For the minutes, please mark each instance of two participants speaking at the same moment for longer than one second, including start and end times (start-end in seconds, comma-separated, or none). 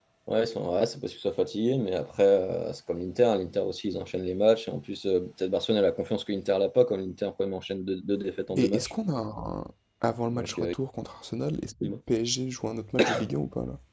none